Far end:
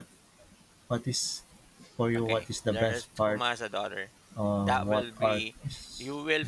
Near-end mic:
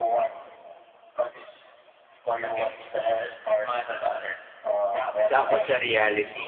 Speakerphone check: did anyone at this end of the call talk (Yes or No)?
Yes